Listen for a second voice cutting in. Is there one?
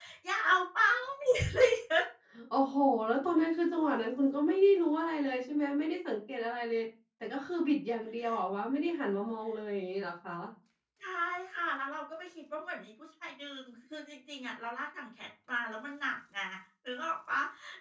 No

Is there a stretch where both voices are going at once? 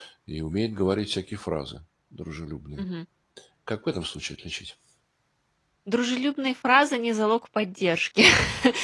No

